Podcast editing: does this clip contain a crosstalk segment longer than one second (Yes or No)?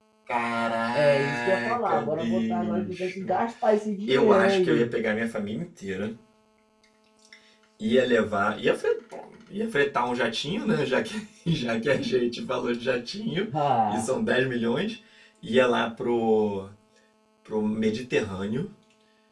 Yes